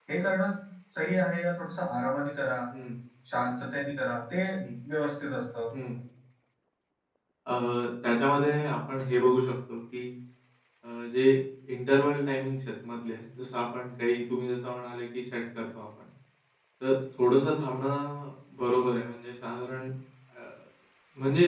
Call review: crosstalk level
none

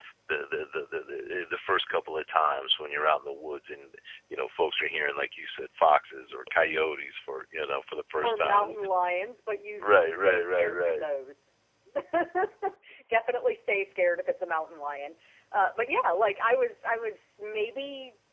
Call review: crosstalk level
present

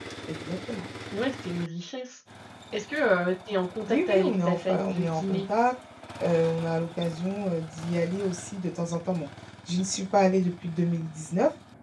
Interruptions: present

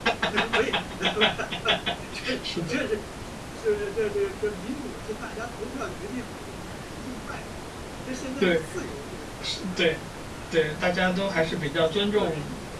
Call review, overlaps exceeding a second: present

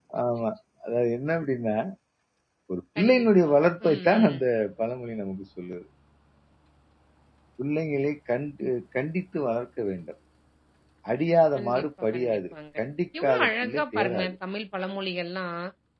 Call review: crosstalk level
present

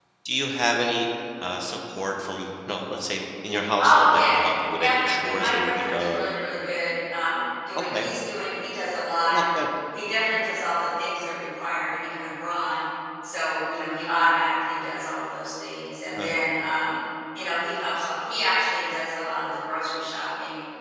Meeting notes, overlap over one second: present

